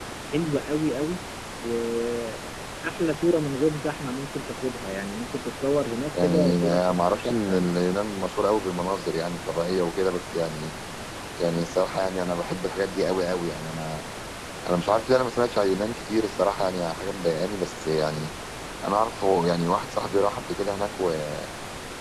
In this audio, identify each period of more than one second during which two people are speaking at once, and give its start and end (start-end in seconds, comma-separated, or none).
6.2-7.7